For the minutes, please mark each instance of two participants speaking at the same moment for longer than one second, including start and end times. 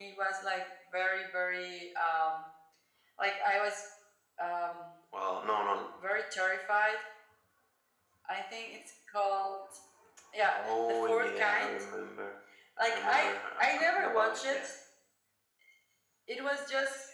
10.5-11.7, 12.8-14.7

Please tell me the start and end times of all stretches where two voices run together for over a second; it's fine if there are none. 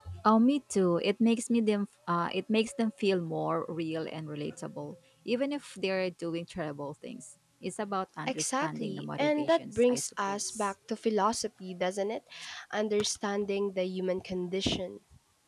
8.3-10.7

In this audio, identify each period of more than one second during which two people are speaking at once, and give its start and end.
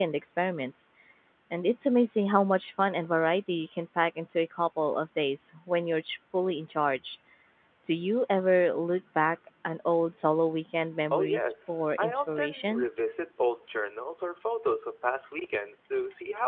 11.1-12.8

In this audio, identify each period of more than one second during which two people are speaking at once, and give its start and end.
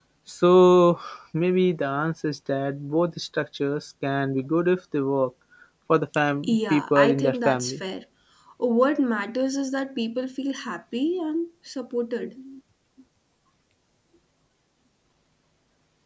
6.4-7.8

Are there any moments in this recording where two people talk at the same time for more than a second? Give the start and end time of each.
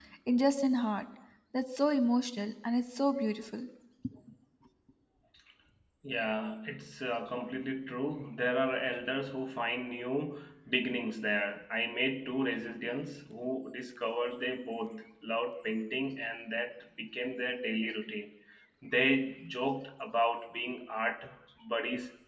none

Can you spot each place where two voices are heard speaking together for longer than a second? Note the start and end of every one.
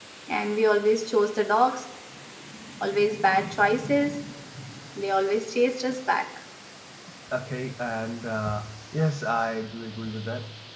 none

